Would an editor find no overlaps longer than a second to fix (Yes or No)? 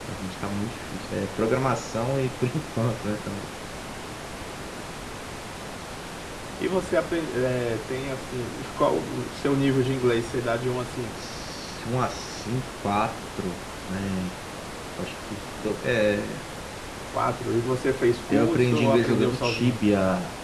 No